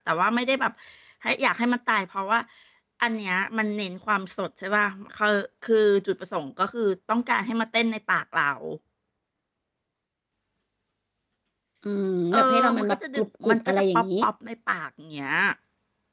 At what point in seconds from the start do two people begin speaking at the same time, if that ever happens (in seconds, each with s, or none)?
12.3 s